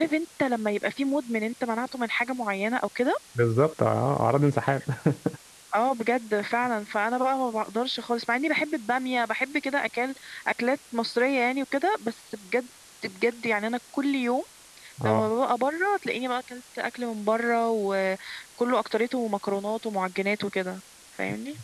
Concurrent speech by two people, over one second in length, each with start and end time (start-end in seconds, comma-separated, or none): none